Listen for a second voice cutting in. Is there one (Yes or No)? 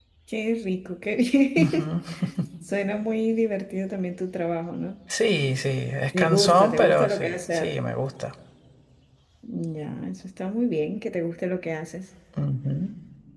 Yes